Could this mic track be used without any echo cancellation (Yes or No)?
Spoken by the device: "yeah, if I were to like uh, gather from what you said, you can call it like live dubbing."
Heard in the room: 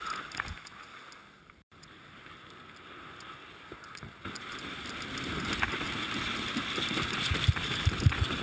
Yes